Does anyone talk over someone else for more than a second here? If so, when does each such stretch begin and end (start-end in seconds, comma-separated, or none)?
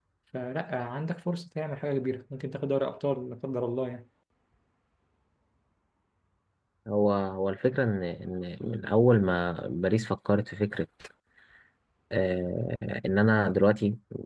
none